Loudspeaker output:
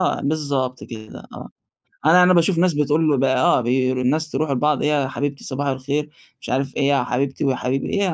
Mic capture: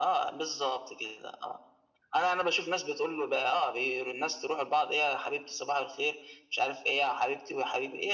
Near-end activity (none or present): none